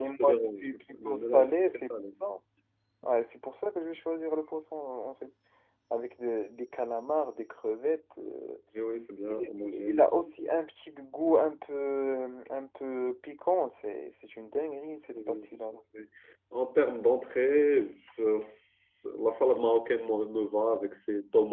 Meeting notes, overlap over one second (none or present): present